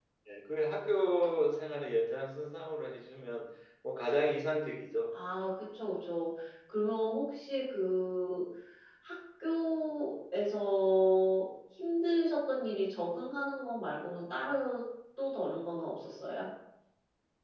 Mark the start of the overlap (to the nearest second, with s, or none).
none